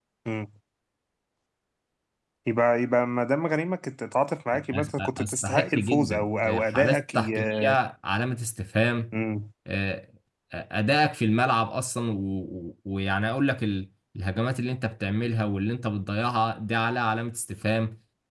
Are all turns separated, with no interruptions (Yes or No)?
No